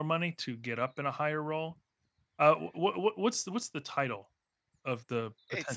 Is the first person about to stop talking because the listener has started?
Yes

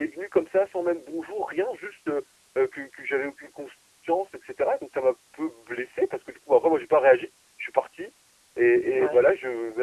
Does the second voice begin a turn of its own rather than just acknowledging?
No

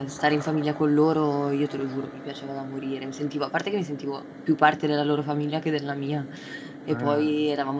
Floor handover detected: No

